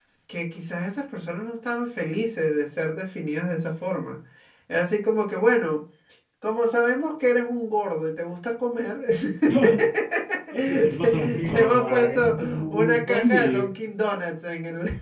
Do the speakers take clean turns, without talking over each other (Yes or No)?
No